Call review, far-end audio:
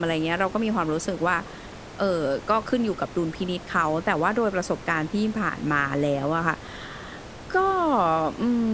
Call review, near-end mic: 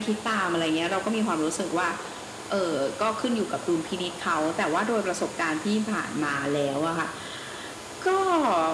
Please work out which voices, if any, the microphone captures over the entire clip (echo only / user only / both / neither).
echo only